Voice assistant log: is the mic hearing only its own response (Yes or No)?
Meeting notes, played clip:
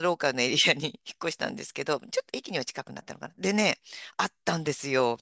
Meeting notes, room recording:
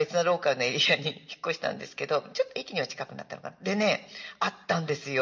Yes